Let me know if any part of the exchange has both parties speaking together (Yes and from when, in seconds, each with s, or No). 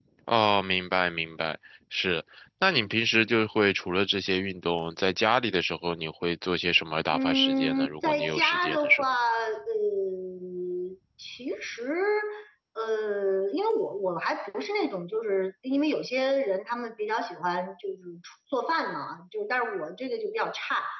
Yes, from 7.1 s